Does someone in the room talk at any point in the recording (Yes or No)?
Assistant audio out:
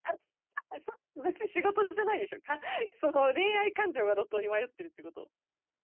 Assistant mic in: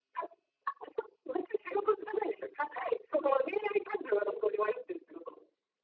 No